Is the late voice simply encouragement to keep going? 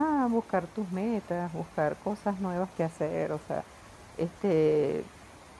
Yes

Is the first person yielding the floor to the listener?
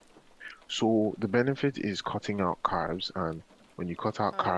No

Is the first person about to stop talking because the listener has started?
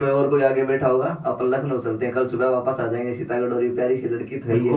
Yes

